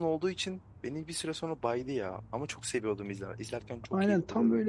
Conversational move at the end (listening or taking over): taking over